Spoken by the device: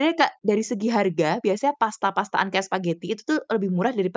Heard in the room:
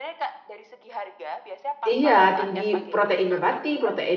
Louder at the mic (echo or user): user